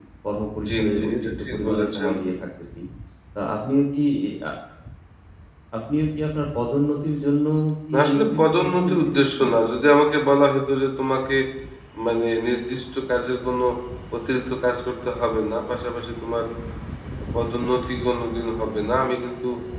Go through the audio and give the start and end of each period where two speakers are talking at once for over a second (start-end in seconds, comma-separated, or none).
0.7-2.1, 7.9-9.5